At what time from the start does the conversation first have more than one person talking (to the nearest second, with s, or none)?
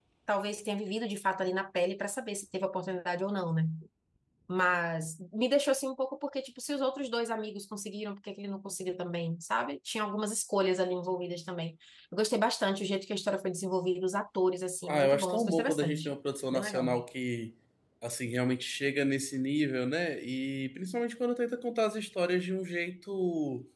15 s